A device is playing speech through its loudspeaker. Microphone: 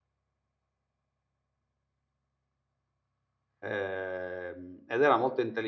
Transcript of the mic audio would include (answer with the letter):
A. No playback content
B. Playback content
A